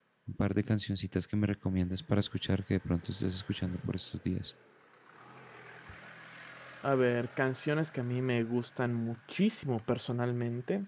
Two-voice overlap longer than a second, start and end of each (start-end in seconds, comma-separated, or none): none